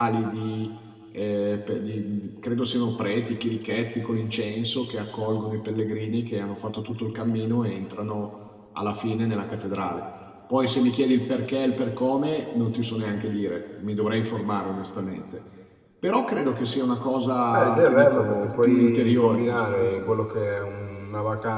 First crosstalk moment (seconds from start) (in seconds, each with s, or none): 17.5 s